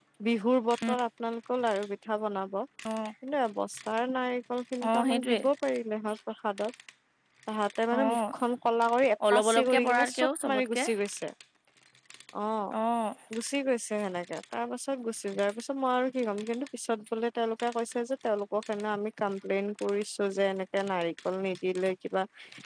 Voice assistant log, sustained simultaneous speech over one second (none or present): present